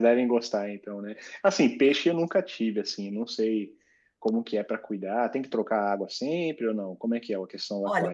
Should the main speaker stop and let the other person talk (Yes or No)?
Yes